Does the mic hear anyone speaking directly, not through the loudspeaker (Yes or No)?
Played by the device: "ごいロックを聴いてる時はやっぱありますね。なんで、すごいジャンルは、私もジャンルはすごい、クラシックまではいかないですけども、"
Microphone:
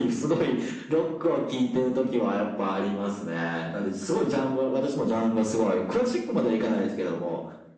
No